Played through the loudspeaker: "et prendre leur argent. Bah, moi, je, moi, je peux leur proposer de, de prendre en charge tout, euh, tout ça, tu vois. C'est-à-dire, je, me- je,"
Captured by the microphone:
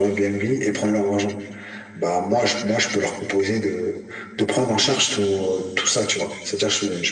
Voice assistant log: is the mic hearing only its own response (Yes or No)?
Yes